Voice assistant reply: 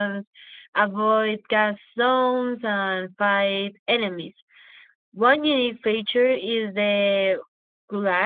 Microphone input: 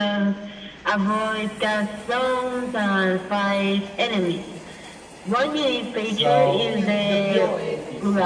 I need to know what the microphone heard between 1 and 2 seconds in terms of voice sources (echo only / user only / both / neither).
echo only